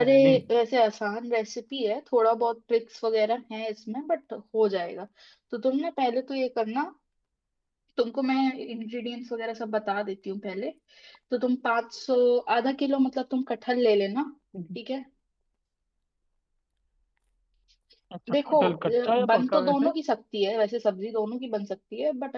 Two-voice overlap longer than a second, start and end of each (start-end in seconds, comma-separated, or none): 18.3-19.9